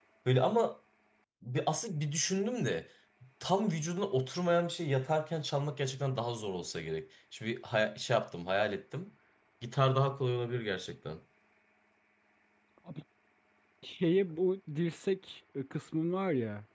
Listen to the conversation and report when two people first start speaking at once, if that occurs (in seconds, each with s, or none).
none